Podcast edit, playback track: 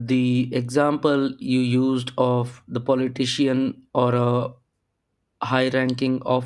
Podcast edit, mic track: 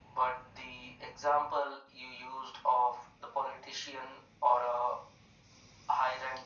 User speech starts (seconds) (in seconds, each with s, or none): none